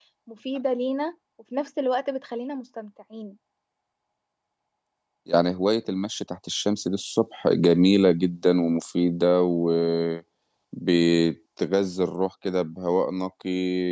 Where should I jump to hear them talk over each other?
none

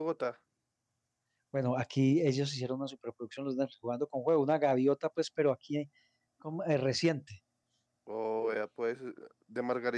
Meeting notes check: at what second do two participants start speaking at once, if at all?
none

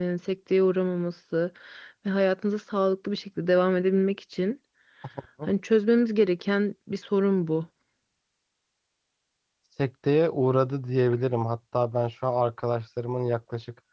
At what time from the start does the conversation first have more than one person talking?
none

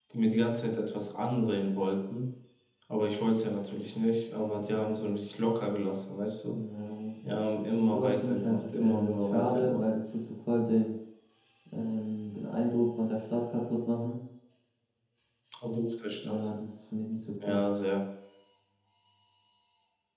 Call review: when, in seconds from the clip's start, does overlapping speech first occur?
8 s

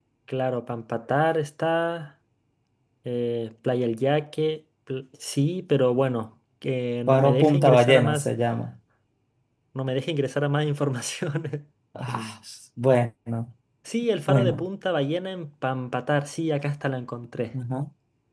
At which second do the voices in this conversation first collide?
7 s

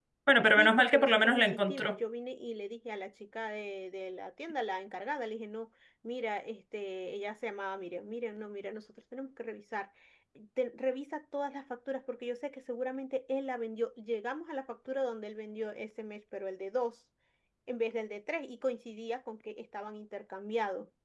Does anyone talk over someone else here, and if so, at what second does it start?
1 s

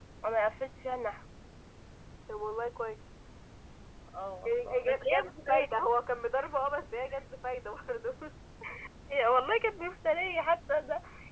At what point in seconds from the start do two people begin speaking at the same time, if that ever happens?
4 s

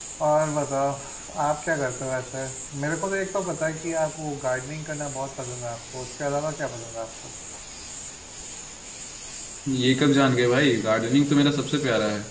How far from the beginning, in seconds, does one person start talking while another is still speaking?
none

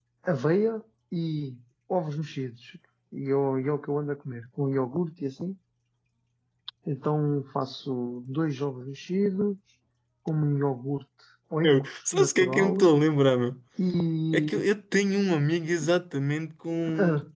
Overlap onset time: 12 s

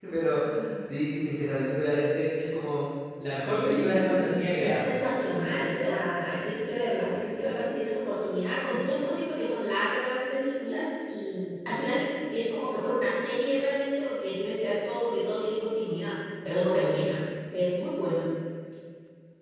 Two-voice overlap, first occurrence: 3 s

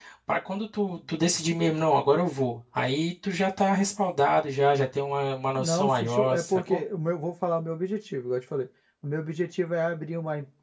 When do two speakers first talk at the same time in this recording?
6 s

